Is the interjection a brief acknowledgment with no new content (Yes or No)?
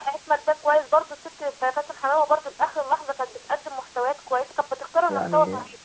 No